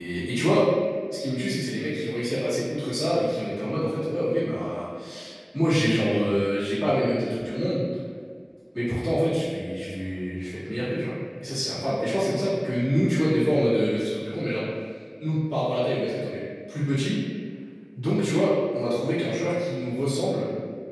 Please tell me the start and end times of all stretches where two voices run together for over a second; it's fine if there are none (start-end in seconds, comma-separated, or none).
none